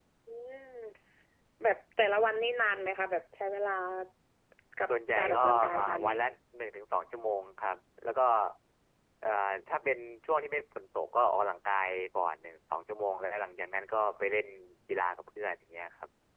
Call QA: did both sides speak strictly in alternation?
No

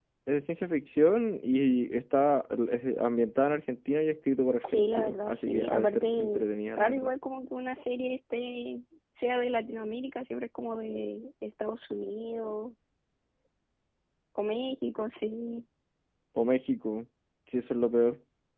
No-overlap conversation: No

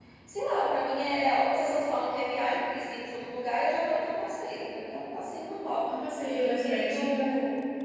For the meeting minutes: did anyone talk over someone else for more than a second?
Yes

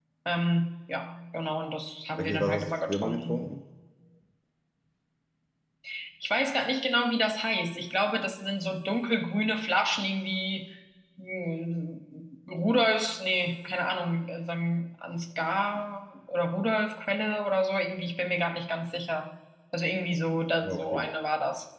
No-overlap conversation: No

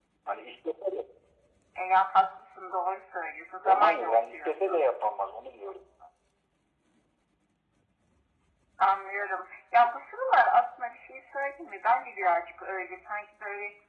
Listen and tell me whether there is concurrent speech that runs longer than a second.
Yes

